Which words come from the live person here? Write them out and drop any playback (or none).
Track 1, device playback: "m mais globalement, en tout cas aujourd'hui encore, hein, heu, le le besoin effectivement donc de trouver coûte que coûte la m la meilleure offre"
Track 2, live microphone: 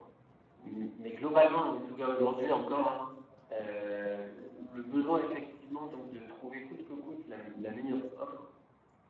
none